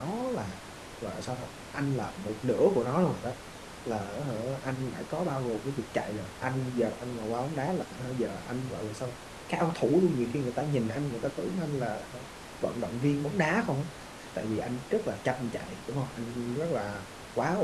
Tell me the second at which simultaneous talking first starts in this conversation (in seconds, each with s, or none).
none